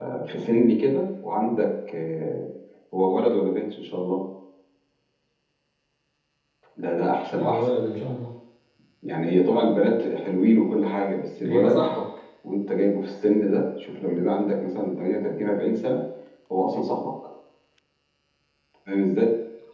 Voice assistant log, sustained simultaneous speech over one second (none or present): none